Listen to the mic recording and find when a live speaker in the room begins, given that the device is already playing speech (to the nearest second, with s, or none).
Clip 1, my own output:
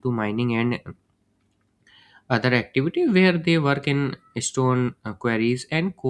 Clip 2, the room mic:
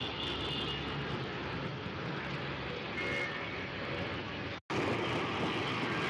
none